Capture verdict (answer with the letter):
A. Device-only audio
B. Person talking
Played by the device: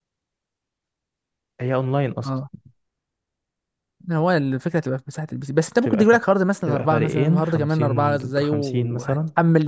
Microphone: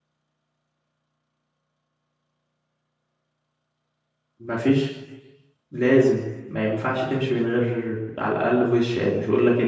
B